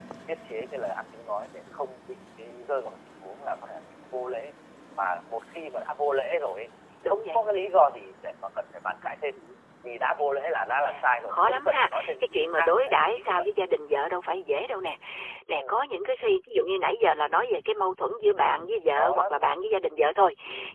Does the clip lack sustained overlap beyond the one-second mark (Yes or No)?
No